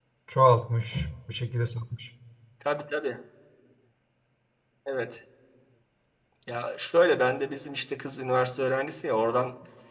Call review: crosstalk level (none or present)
none